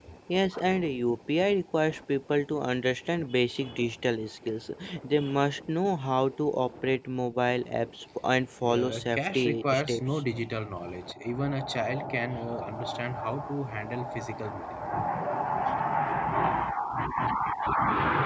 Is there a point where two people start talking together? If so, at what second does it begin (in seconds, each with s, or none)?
8.6 s